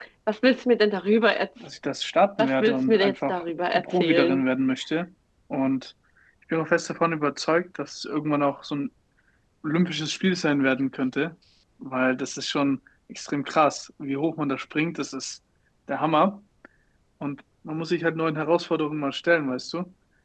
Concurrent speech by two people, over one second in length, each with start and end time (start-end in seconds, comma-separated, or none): 2.4-4.4